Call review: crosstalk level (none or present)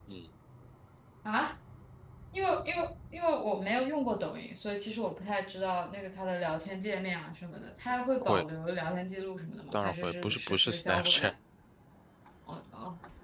present